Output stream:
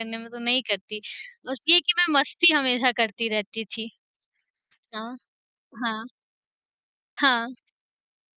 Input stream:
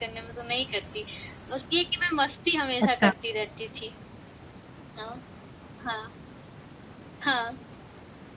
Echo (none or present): present